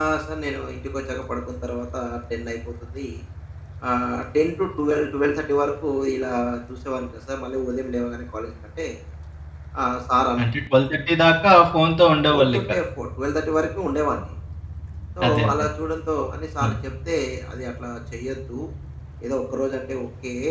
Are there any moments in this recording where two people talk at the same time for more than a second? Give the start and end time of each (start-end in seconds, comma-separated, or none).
none